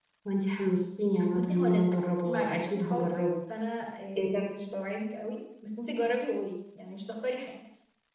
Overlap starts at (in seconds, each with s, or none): 1.3 s